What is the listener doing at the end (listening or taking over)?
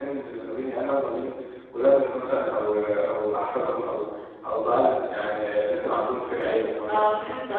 taking over